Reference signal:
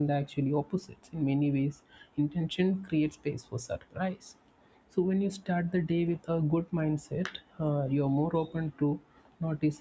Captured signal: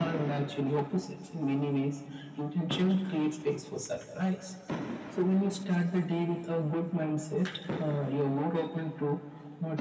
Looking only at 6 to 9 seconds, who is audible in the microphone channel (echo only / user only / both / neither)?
echo only